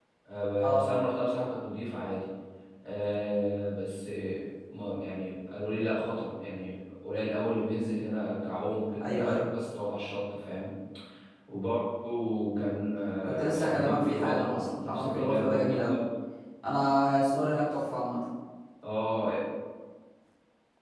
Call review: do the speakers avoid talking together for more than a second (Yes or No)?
No